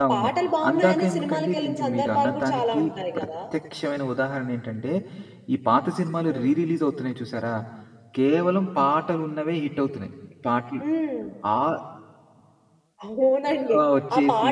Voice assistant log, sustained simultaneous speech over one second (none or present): present